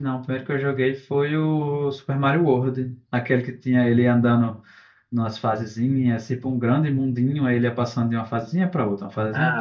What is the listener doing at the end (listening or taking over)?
taking over